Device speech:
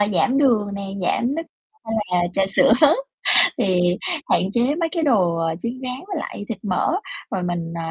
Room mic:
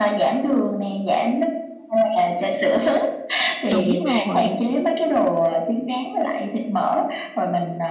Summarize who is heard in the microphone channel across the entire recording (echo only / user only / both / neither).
both